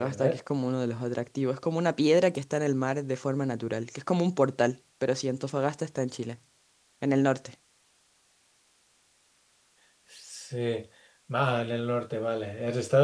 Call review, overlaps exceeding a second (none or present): none